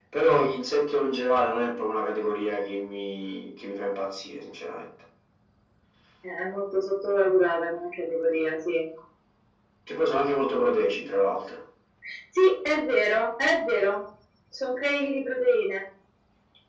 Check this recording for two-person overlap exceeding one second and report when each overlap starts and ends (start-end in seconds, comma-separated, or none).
none